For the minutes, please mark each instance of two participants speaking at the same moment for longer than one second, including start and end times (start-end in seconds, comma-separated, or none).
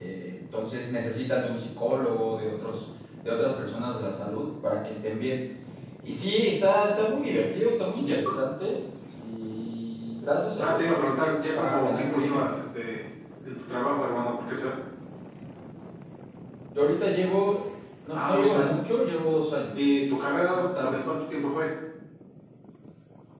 10.6-12.4